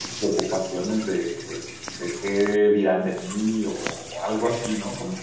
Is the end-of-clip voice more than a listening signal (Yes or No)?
No